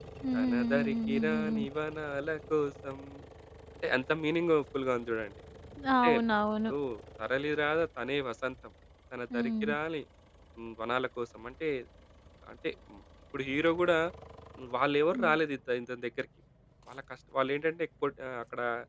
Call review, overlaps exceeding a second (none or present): present